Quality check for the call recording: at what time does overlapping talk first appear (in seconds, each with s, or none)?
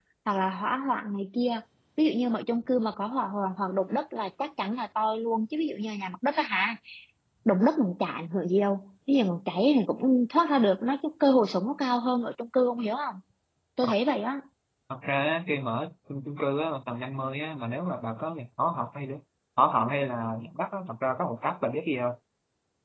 none